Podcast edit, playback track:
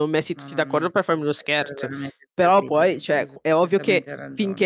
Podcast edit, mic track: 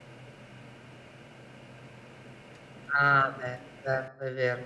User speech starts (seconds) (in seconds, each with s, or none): 2.9 s